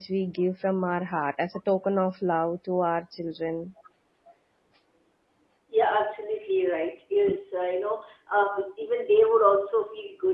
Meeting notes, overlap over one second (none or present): none